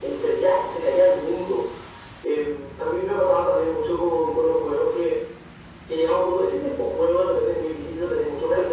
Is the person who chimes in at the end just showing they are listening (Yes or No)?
No